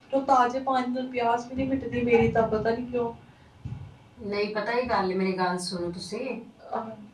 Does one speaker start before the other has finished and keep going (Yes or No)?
No